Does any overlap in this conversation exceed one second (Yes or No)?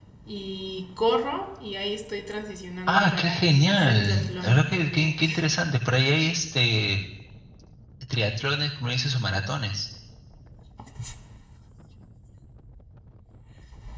Yes